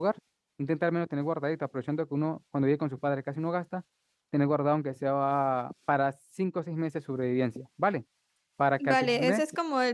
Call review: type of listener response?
taking over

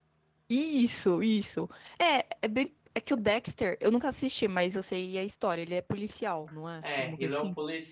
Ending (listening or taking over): taking over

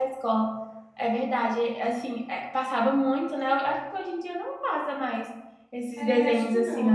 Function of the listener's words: taking over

